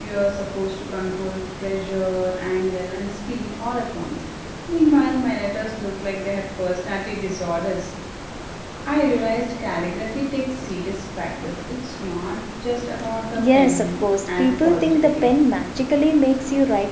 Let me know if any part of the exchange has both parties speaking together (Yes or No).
Yes